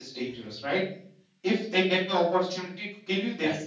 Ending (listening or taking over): listening